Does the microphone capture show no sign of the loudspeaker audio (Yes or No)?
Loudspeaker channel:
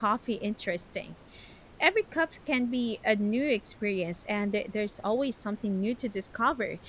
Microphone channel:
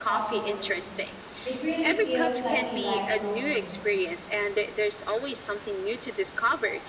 No